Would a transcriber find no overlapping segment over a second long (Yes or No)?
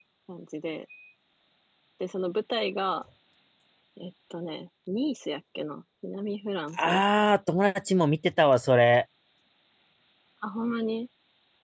Yes